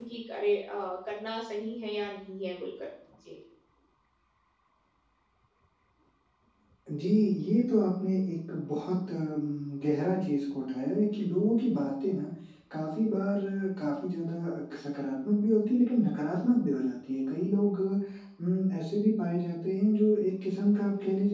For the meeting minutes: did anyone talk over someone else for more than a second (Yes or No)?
No